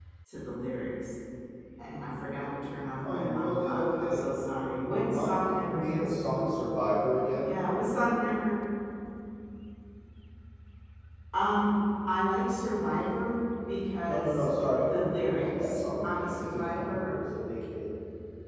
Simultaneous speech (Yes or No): Yes